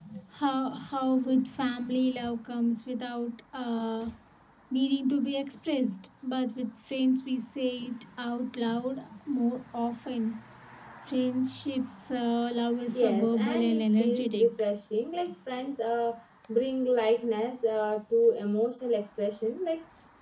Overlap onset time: 12.9 s

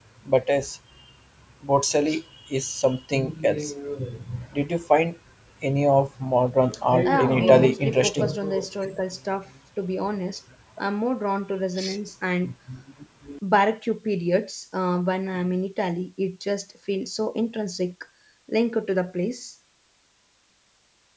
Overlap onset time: 7.0 s

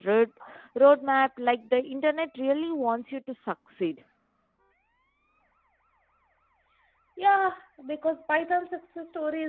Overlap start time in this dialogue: none

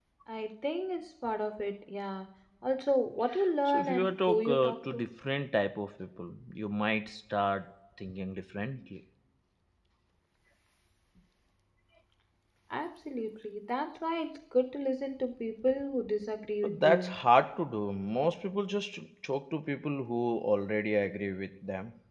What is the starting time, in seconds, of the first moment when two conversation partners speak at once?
3.6 s

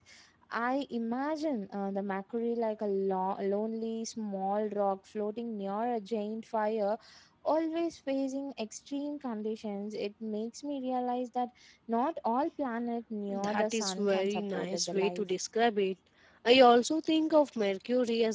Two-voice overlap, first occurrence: 13.3 s

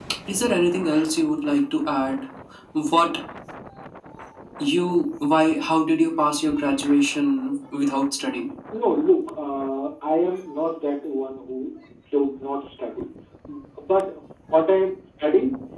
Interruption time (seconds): none

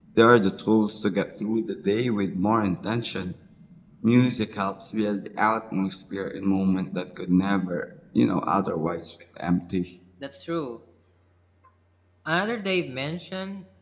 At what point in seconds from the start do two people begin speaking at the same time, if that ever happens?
none

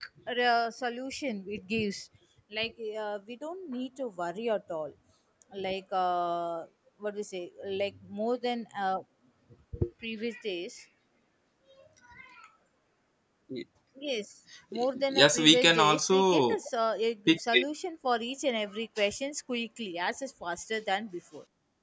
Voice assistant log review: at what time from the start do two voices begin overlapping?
15.1 s

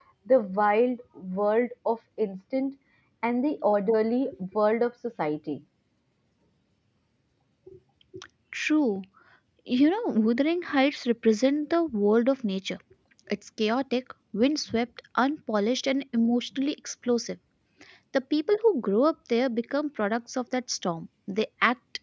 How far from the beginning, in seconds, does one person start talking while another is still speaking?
none

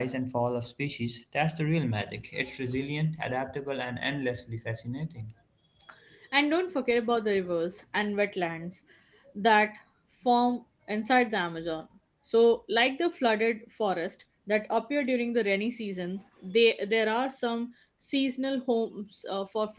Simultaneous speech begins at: none

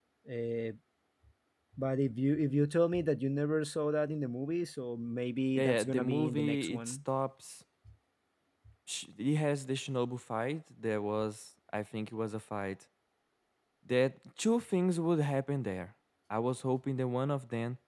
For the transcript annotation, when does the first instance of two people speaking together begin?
5.5 s

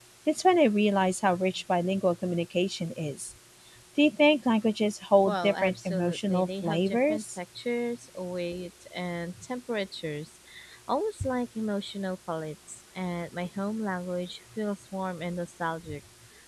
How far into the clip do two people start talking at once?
5.3 s

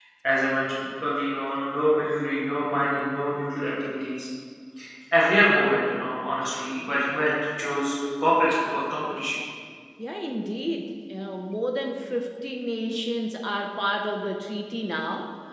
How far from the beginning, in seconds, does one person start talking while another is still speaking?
none

